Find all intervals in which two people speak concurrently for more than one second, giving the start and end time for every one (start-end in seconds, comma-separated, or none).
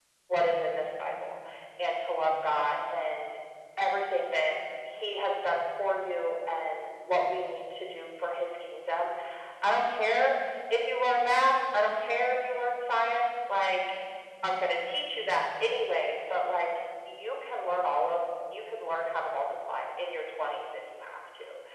none